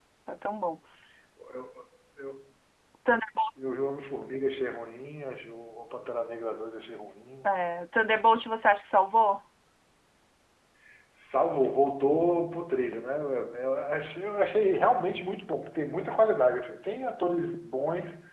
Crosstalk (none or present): none